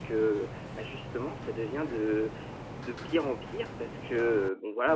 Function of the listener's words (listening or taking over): listening